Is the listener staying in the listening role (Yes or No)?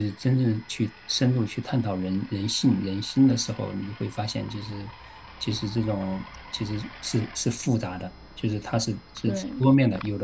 Yes